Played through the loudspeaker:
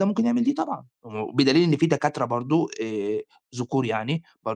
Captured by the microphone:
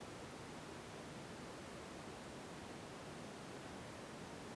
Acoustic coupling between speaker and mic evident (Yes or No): No